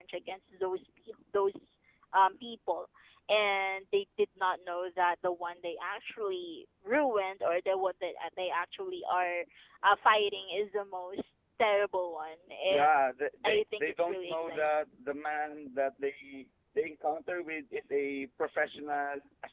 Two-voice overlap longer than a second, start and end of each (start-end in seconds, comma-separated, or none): 13.4-14.8